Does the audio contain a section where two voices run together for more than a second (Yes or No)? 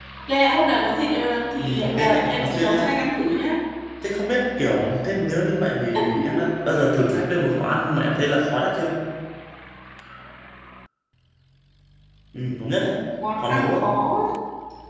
Yes